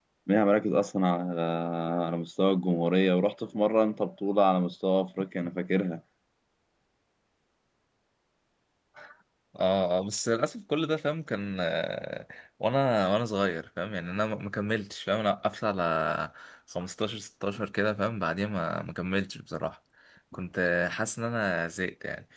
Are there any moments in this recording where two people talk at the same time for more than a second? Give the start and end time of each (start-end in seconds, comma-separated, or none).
none